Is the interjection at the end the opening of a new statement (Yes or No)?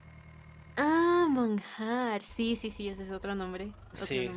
Yes